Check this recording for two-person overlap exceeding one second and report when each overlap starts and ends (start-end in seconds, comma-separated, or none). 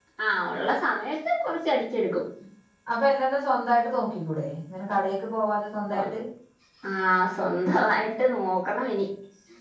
none